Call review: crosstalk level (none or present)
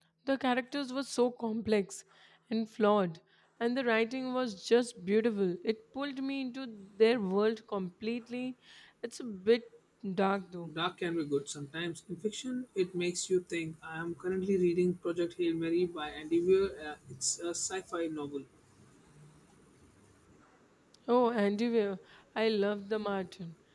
none